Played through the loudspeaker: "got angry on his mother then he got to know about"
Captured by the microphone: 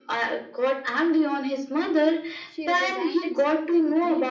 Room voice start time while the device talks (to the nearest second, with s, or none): 2 s